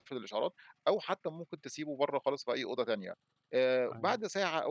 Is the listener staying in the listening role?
Yes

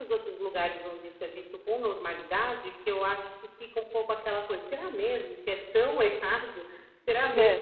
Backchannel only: Yes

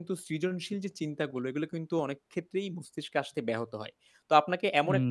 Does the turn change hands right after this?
No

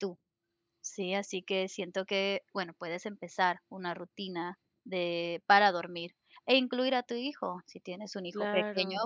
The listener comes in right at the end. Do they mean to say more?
No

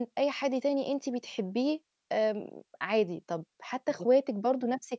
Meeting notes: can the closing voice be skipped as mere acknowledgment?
Yes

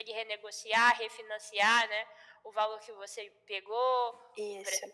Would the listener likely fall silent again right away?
Yes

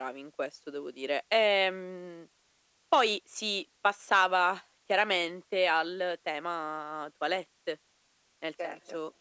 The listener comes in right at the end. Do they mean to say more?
No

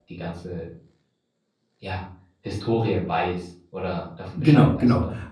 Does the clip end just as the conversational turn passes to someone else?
Yes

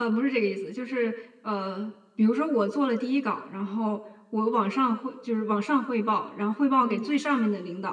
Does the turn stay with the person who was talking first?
Yes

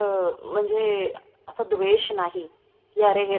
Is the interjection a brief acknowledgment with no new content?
Yes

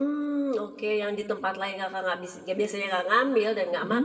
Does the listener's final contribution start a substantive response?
No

